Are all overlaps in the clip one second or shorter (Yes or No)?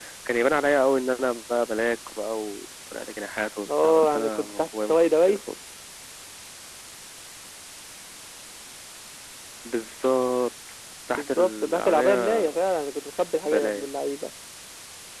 No